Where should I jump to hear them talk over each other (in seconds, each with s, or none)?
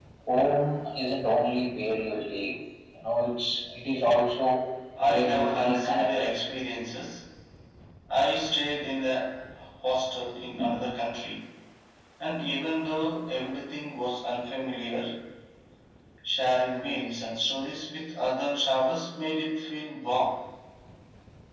5.0 s